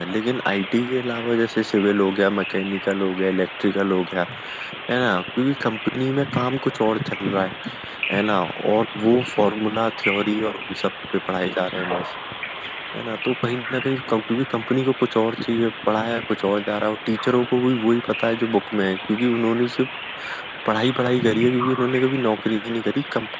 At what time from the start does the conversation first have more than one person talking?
none

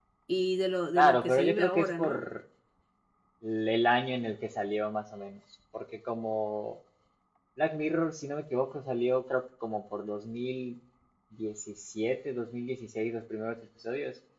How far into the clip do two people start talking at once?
0.9 s

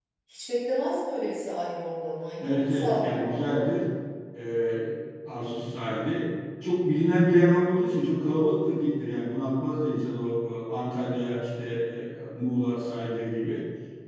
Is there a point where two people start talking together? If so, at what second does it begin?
2.4 s

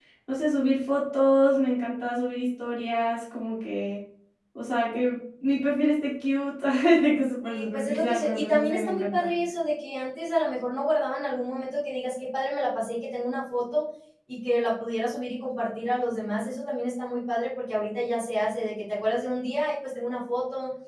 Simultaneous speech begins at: 7.4 s

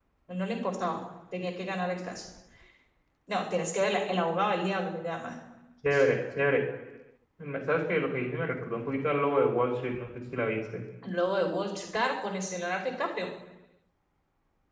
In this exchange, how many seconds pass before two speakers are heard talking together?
none

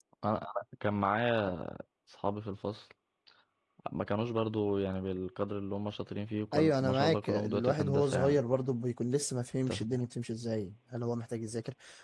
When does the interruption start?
6.5 s

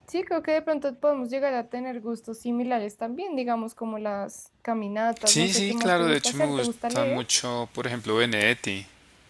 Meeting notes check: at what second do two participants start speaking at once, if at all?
5.2 s

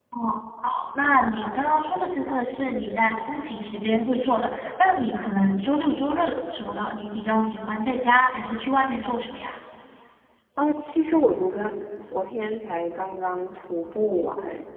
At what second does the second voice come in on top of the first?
none

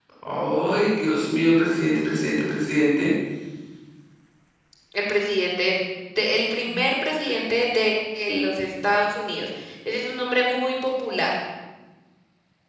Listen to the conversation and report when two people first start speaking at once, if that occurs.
none

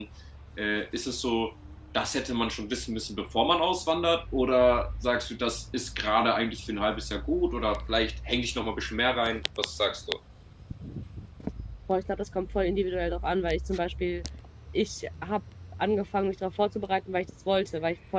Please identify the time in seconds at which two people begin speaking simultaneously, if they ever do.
none

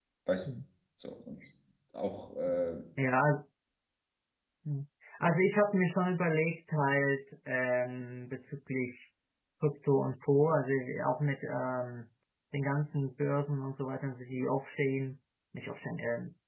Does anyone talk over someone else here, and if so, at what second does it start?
none

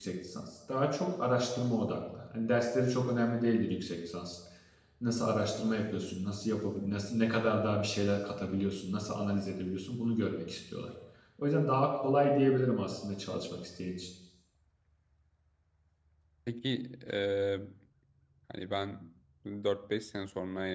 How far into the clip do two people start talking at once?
none

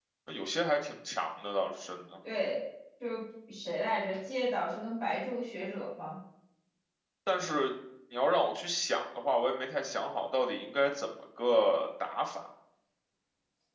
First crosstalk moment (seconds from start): none

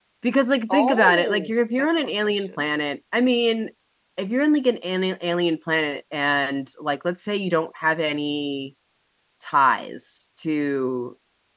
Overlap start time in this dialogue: 0.7 s

